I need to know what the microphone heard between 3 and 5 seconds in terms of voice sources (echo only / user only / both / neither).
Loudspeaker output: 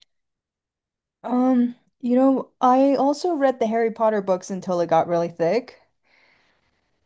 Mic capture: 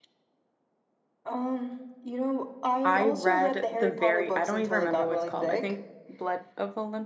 both